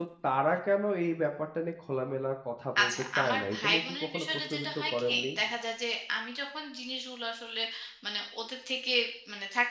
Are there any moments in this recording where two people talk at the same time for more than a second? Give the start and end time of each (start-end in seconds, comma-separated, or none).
2.8-5.2